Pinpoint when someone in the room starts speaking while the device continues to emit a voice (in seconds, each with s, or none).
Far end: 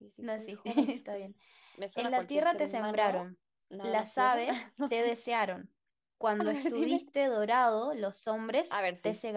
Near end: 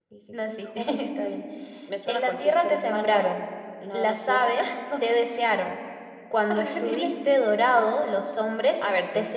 none